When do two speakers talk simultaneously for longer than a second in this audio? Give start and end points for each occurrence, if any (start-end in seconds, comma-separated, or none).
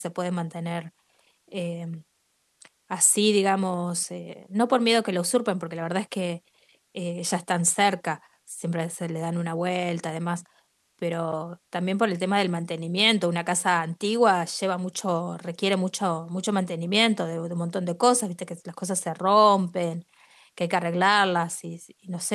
none